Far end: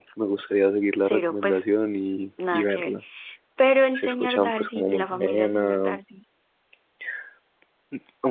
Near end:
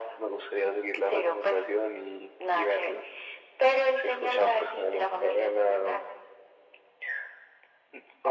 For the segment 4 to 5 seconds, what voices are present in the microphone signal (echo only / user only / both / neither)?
echo only